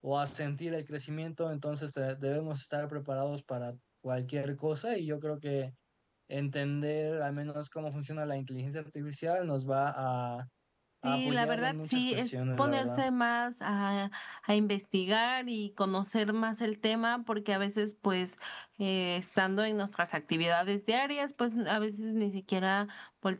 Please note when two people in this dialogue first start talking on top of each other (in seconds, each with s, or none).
11.0 s